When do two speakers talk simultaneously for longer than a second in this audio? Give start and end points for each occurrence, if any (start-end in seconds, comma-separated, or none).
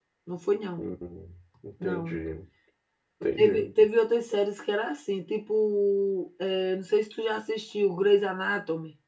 none